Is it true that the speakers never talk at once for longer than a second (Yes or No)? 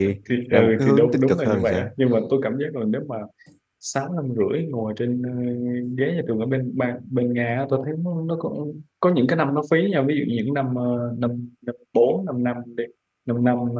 No